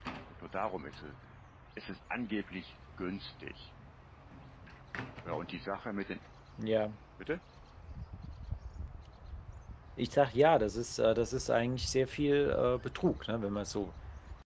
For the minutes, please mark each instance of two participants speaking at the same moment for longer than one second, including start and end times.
none

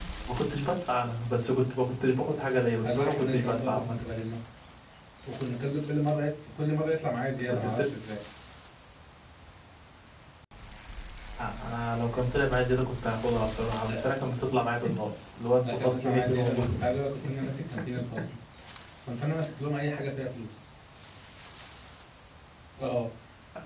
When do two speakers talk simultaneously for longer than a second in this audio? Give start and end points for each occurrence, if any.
2.8-4.0, 15.6-16.8

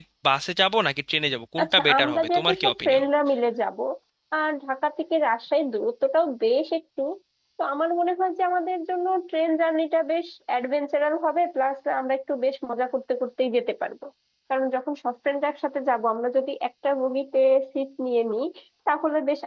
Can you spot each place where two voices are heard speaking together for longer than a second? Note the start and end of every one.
1.6-3.0

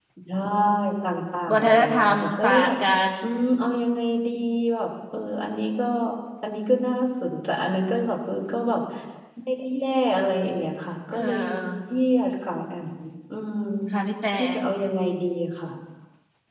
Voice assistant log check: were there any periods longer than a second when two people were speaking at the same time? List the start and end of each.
1.6-2.8

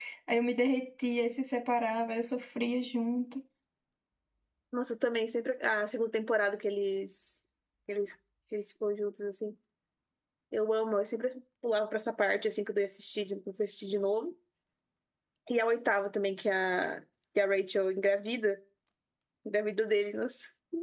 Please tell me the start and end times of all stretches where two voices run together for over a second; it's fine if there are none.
none

